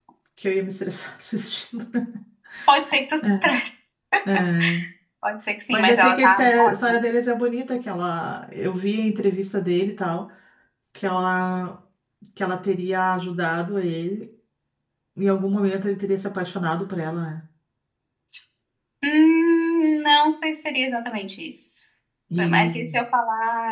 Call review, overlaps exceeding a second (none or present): present